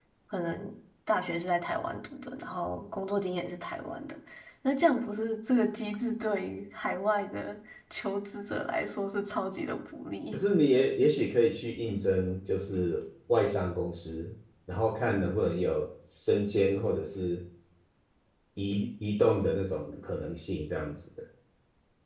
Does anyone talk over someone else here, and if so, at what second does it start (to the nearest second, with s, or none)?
none